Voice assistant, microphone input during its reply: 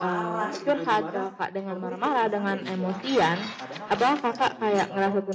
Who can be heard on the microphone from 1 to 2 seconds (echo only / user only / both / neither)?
both